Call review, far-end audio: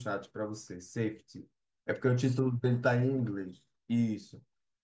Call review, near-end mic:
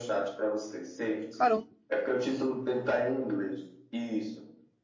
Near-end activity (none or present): present